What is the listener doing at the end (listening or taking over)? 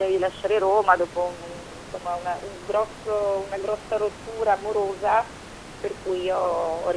listening